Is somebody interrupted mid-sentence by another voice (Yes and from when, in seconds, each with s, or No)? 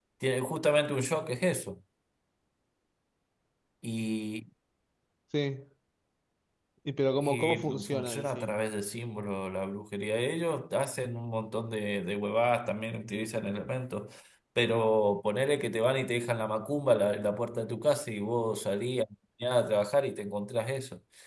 Yes, from 7.2 s